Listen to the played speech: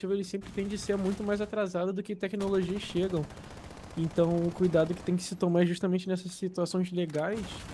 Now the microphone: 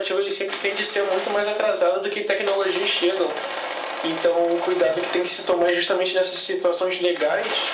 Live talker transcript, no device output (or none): none